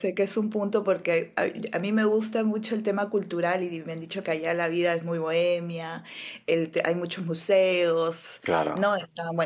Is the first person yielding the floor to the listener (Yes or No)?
No